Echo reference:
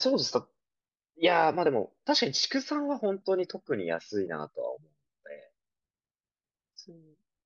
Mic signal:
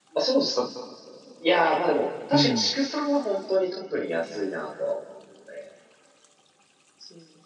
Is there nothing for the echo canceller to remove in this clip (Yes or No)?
No